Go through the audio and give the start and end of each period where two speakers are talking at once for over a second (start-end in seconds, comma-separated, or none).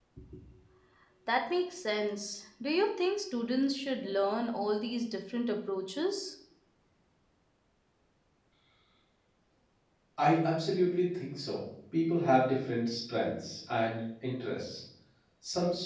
none